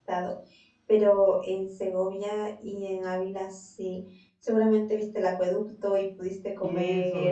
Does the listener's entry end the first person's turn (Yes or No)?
Yes